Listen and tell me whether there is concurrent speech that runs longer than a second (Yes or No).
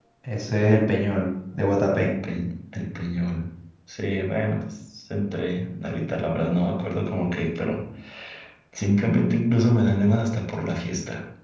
No